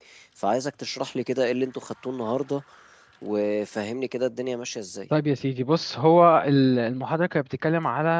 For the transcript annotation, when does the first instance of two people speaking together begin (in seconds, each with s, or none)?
none